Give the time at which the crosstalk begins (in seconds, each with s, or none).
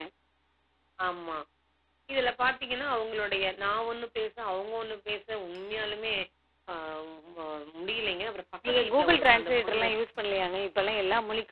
8.7 s